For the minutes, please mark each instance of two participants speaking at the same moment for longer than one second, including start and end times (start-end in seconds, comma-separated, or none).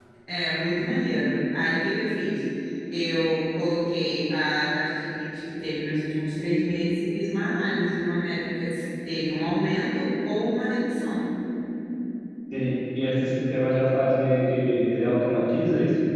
none